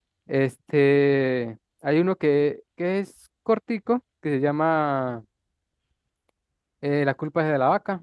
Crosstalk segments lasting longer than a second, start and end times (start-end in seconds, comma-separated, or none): none